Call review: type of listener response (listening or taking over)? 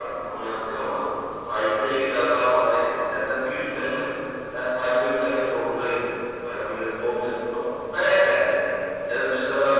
listening